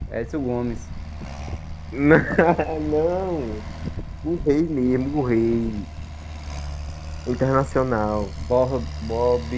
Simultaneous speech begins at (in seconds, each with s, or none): none